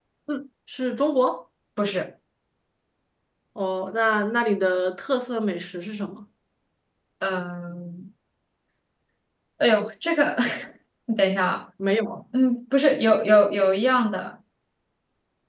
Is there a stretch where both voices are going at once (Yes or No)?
No